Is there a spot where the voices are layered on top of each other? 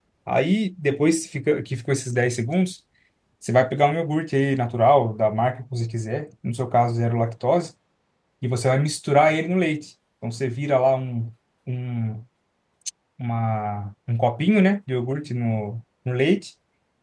No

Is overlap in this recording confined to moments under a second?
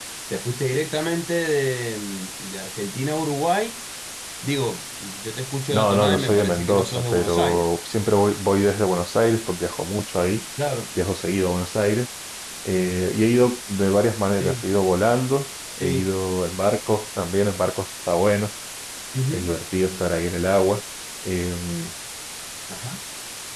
No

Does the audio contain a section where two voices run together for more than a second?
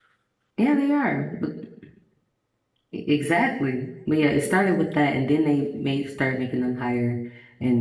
No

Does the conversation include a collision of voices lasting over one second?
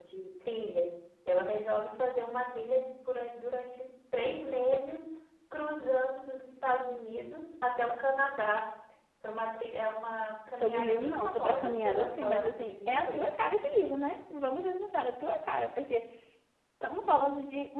Yes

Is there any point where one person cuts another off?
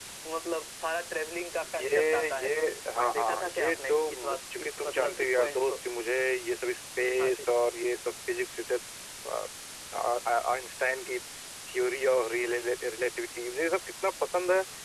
Yes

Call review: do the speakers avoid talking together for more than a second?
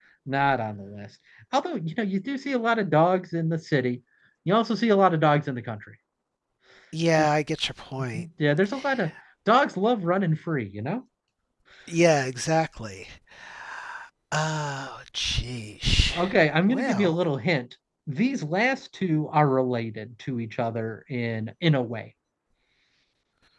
Yes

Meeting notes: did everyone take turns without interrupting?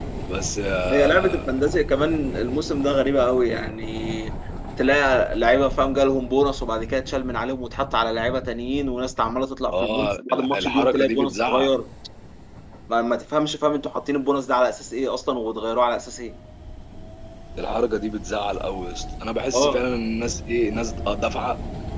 No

